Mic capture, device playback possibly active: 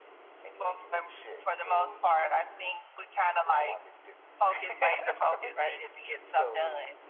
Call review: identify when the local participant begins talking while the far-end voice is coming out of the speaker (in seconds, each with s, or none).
none